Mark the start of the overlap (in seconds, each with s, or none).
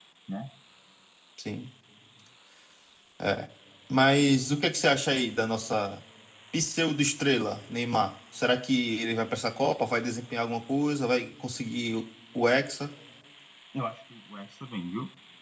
none